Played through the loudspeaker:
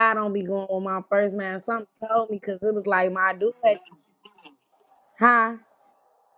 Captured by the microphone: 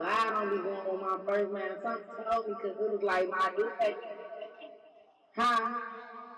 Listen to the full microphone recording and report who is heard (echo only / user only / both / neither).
echo only